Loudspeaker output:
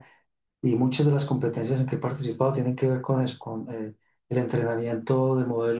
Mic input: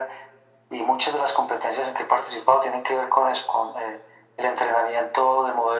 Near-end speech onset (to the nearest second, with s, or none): none